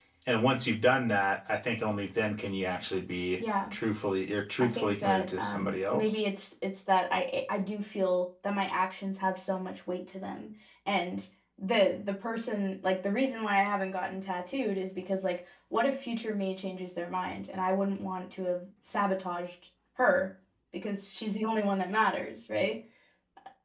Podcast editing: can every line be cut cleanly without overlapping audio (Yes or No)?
No